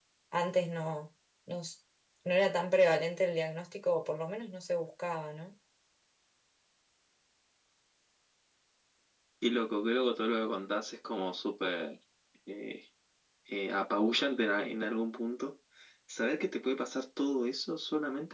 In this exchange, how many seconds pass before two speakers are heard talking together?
none

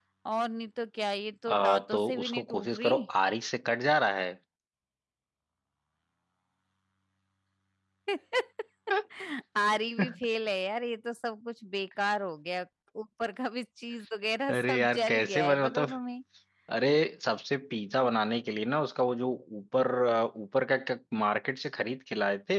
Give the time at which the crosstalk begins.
1.5 s

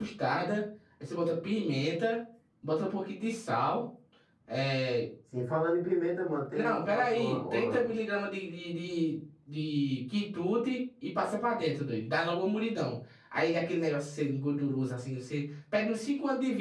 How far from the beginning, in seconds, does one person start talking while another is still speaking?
6.5 s

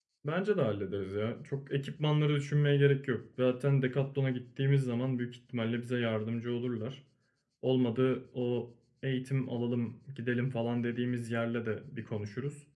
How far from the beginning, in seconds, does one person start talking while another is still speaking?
none

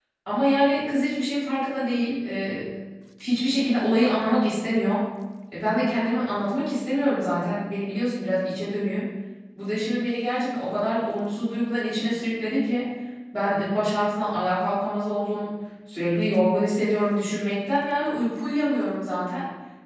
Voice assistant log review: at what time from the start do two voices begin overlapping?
none

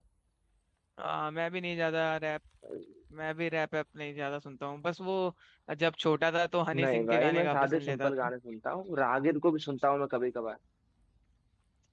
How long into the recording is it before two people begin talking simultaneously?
6.7 s

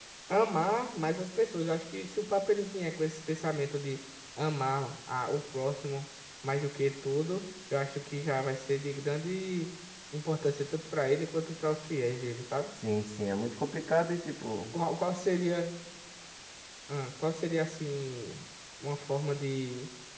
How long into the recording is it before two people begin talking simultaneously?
none

